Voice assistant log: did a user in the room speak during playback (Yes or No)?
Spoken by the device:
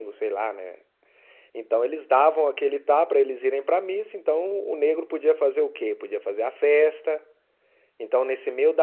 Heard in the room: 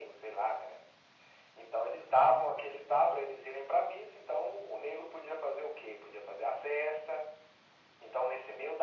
No